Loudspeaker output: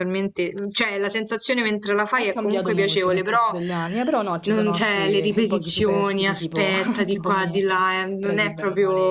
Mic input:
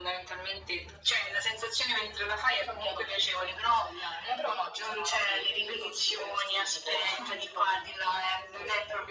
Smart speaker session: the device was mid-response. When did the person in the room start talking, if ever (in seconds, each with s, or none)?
none